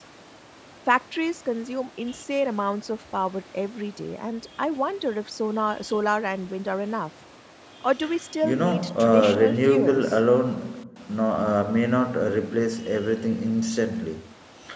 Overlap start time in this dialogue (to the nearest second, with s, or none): 8 s